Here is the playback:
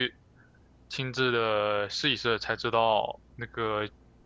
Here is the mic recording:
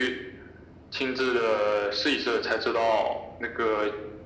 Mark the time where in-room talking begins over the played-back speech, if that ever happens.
none

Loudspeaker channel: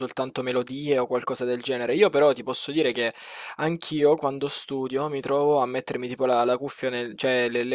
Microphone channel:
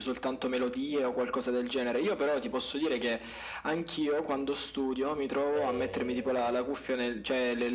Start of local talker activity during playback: 5.5 s

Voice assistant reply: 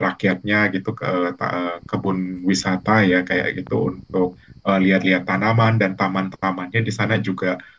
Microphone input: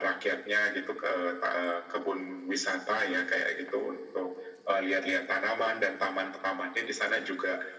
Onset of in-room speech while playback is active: none

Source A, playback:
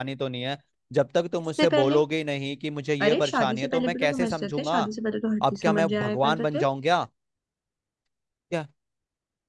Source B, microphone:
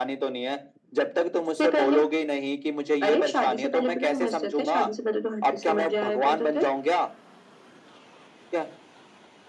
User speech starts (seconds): none

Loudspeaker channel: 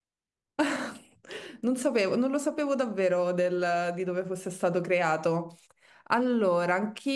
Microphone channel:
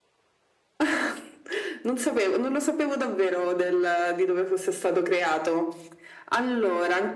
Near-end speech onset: none

